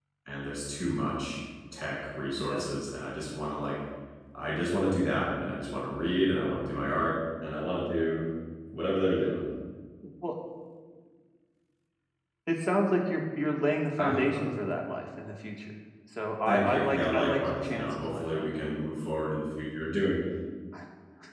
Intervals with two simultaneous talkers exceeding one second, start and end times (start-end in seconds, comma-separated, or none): 16.4-18.5